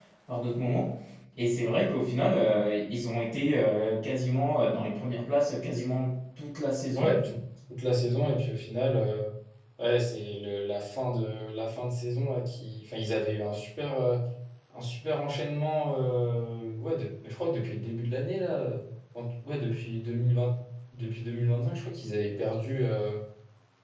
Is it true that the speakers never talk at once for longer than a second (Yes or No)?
Yes